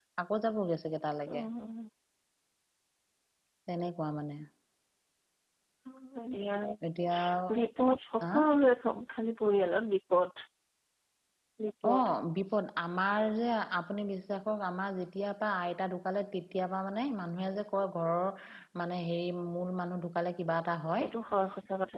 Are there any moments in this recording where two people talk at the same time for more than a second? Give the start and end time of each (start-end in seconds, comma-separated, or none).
none